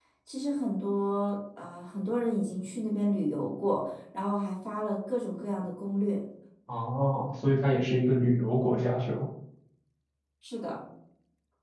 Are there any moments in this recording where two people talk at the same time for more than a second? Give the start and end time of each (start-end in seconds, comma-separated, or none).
none